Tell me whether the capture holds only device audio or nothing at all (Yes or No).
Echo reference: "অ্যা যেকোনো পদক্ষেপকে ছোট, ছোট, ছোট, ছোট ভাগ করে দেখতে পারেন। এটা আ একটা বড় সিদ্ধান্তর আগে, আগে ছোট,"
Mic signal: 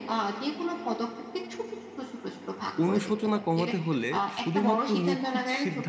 No